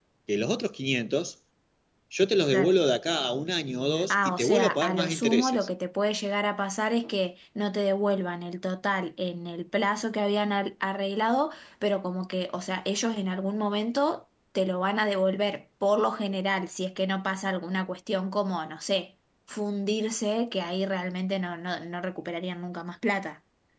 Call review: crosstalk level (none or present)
present